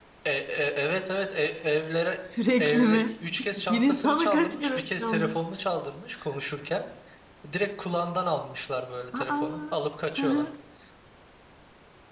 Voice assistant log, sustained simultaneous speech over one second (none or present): present